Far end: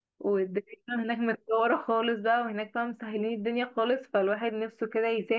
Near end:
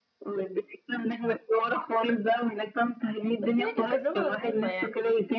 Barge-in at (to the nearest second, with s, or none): 3 s